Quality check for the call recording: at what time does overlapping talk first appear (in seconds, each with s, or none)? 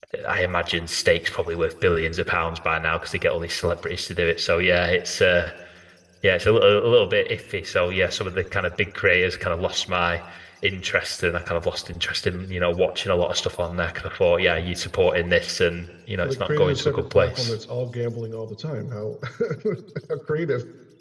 16.2 s